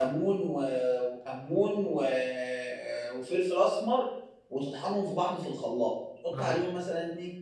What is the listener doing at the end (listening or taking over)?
listening